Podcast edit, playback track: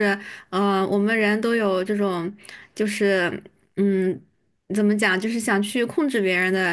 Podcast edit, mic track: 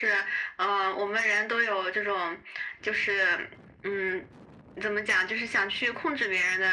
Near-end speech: none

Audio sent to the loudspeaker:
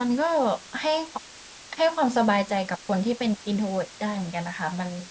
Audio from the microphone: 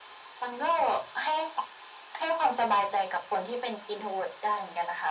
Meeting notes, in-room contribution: none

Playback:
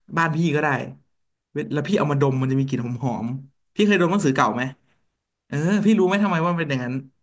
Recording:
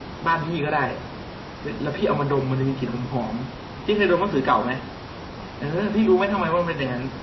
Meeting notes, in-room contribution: none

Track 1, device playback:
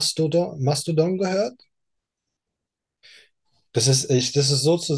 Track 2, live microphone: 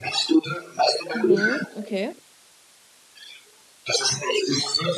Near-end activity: present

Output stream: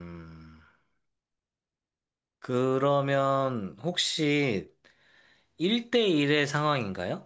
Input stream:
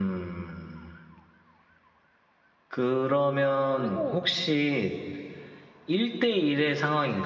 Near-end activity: present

